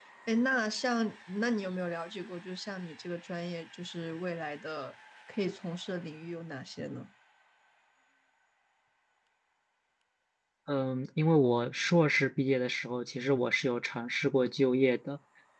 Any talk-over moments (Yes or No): No